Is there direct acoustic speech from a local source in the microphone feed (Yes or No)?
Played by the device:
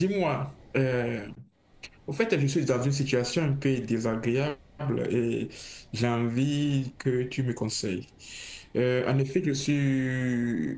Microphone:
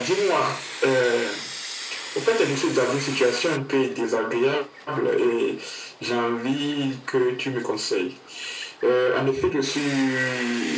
No